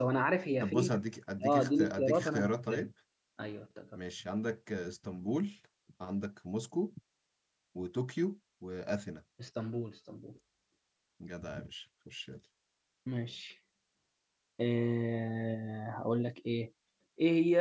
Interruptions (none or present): present